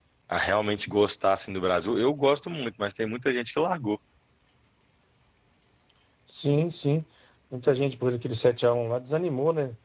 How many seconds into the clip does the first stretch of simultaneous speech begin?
none

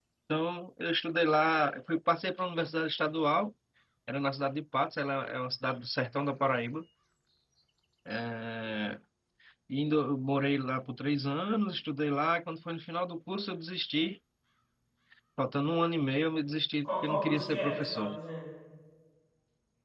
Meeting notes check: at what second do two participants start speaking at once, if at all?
16.8 s

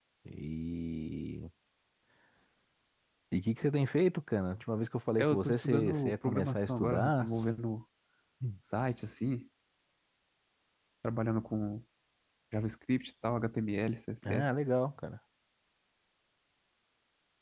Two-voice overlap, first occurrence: 5.2 s

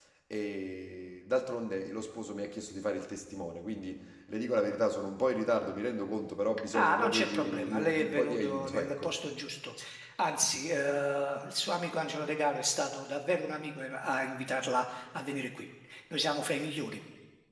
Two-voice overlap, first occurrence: 6.7 s

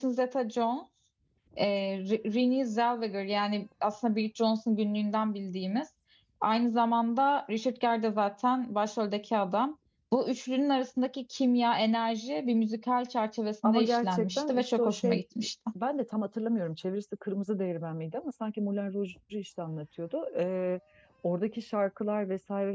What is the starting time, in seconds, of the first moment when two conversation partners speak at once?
13.6 s

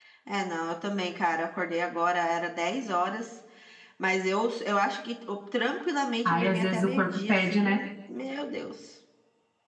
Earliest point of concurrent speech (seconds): 6.2 s

